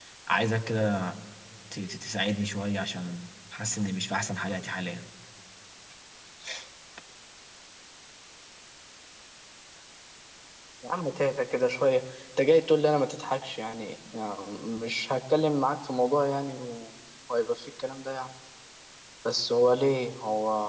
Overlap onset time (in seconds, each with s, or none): none